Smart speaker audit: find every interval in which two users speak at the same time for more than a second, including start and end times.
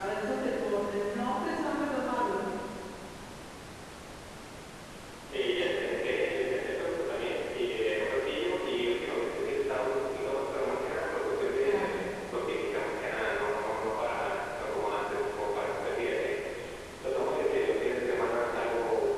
none

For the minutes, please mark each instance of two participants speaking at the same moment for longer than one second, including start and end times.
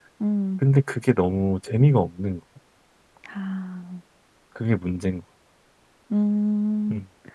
none

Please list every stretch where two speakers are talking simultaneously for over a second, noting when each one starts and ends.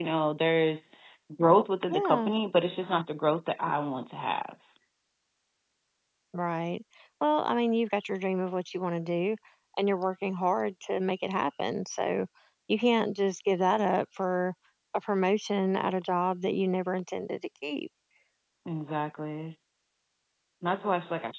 none

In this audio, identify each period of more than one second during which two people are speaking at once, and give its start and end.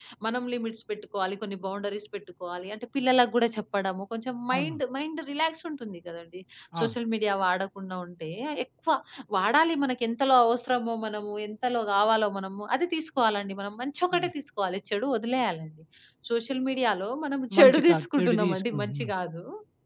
17.6-19.1

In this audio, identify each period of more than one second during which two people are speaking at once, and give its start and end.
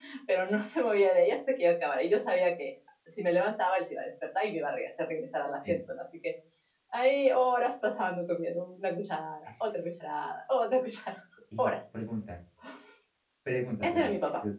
none

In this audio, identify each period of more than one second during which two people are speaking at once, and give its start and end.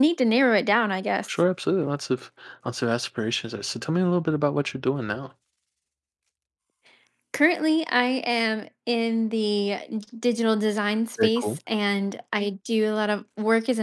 none

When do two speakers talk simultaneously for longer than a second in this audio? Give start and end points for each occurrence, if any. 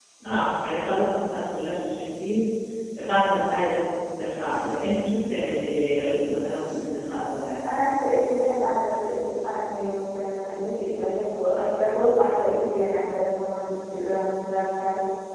none

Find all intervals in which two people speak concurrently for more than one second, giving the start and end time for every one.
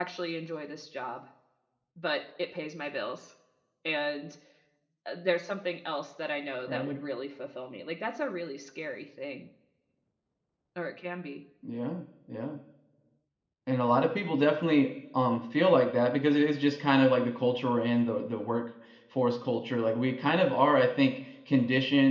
none

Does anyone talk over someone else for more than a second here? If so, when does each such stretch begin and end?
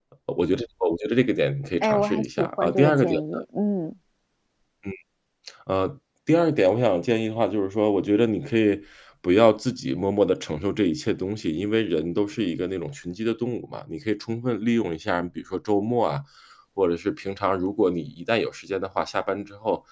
1.8-3.2

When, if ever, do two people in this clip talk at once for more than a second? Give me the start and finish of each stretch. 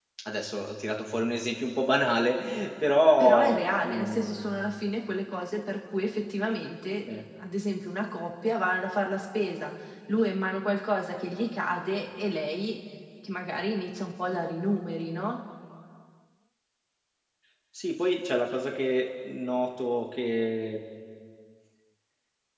3.2-4.4

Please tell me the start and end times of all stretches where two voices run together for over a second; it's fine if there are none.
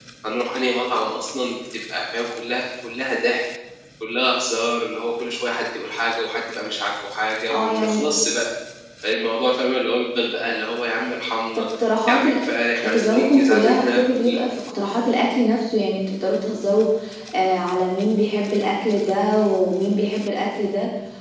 12.8-14.4

